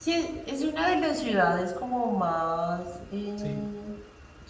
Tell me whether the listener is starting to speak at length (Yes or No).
No